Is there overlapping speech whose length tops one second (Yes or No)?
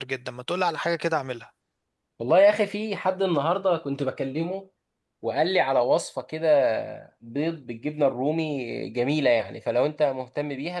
No